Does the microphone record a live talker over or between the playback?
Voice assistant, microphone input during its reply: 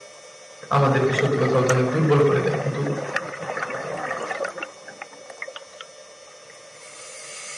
Yes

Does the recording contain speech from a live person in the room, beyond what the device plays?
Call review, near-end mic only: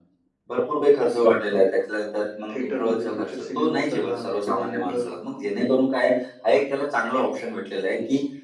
Yes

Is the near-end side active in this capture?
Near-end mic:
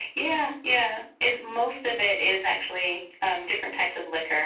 No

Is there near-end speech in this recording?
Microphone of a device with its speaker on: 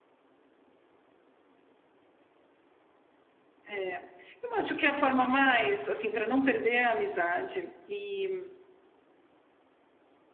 Yes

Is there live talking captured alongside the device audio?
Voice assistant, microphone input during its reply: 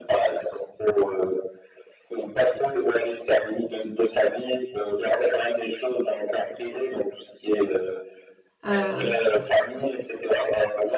Yes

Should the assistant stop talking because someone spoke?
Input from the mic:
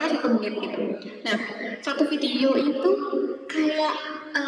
No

